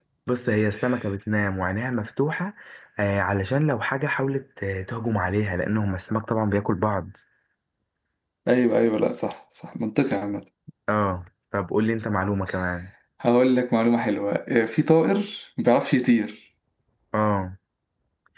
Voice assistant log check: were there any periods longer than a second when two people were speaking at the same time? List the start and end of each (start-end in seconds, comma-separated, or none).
none